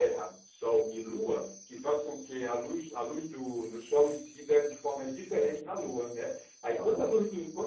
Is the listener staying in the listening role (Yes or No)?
Yes